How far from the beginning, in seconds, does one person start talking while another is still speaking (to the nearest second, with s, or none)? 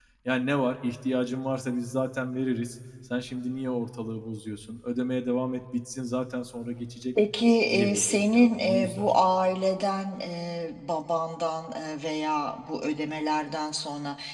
8 s